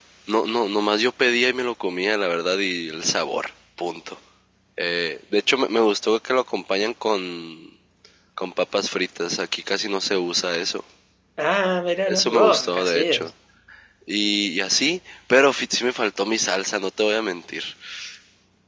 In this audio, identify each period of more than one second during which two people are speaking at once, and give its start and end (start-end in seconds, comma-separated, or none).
12.1-13.3